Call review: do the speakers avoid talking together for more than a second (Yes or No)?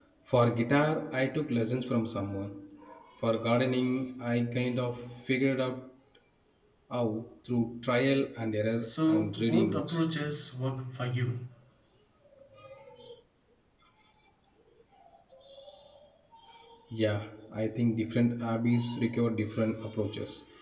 No